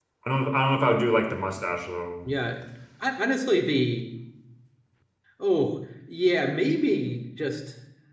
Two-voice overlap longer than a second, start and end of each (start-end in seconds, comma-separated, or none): none